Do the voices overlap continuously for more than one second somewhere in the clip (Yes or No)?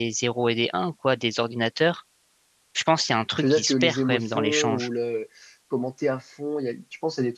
Yes